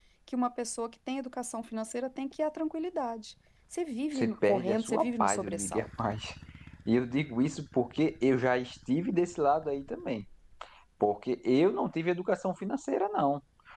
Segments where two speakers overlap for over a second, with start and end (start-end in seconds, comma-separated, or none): 4.1-5.9